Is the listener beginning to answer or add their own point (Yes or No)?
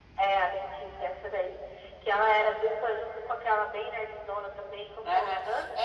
Yes